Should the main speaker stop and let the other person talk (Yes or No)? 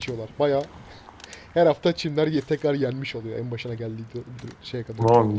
Yes